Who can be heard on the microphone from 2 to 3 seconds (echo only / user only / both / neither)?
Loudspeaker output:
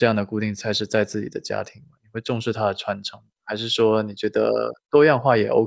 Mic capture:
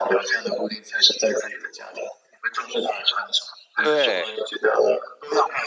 echo only